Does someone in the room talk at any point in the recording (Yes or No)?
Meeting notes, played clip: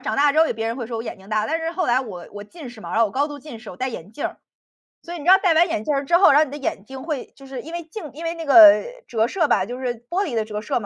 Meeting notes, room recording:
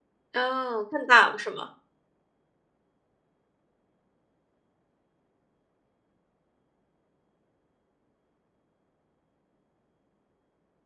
Yes